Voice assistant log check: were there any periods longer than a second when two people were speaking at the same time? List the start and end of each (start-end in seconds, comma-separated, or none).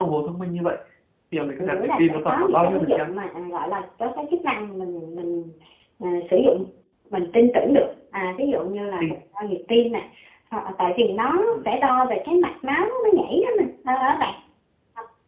1.6-3.1